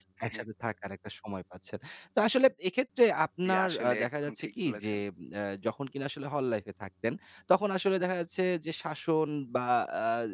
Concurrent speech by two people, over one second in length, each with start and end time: 3.4-4.9

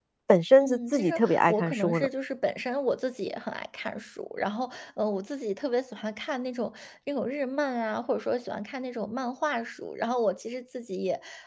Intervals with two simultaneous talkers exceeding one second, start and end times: 0.6-2.1

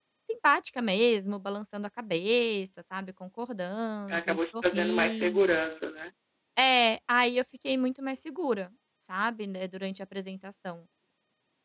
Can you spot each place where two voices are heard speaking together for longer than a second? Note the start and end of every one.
4.1-5.6

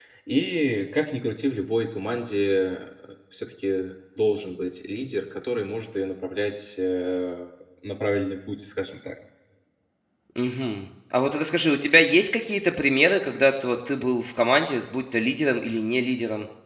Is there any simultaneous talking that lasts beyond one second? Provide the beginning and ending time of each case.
none

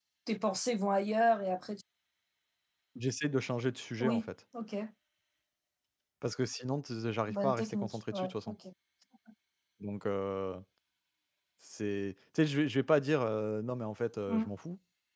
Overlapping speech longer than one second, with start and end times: 7.3-8.5

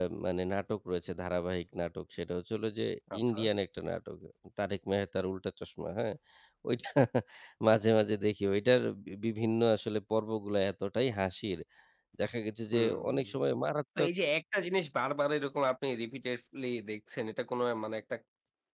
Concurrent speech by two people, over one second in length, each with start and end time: none

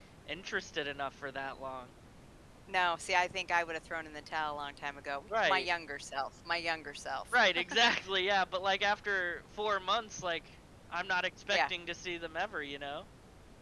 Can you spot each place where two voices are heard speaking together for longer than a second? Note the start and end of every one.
none

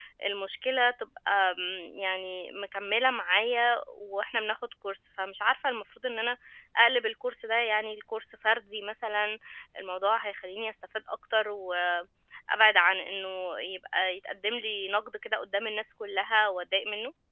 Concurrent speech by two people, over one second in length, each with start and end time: none

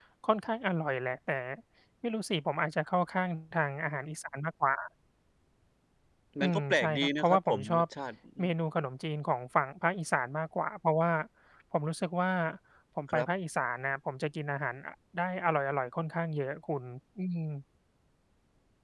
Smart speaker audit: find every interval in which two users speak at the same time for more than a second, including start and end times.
6.4-7.8

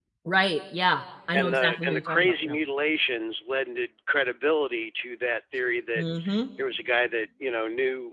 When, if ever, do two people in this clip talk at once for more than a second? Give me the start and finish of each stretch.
1.3-2.5

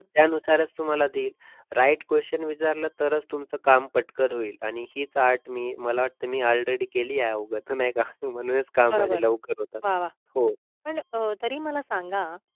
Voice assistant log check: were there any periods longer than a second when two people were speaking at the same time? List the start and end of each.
none

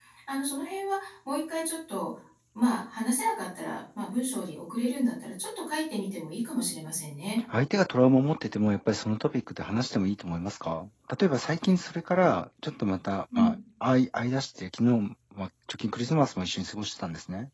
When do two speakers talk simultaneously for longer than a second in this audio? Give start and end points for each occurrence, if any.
none

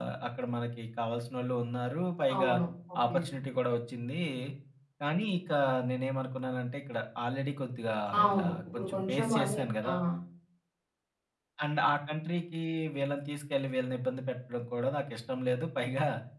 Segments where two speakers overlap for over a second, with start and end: 8.3-9.9

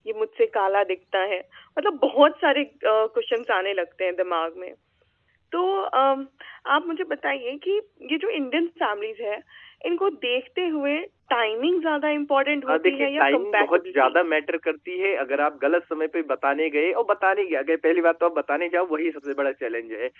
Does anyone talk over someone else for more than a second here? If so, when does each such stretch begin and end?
12.7-14.2

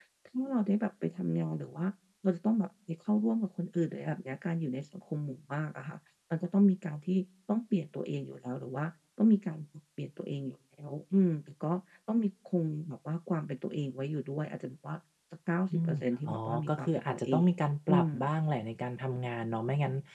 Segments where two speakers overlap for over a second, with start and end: 15.7-17.5

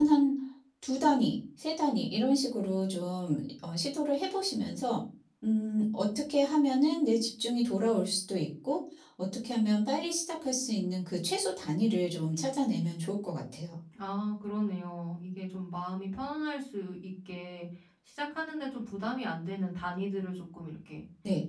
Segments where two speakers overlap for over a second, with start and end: none

